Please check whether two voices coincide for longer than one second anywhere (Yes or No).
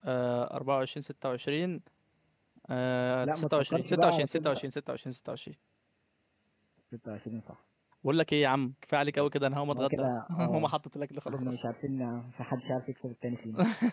Yes